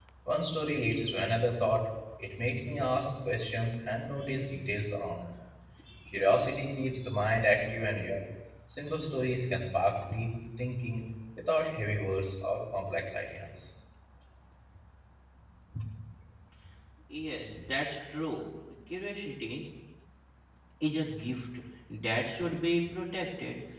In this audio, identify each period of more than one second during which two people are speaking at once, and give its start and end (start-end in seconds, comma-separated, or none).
none